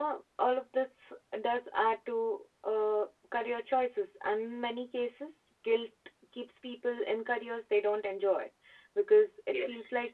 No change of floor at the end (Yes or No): No